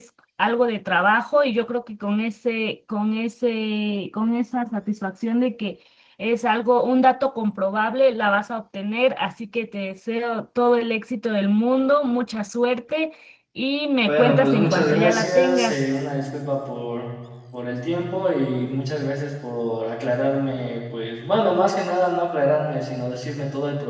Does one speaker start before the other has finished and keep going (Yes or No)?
Yes